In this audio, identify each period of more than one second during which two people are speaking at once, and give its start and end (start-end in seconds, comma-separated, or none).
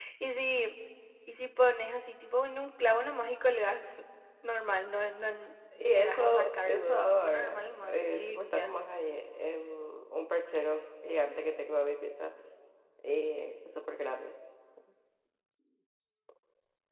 5.8-8.7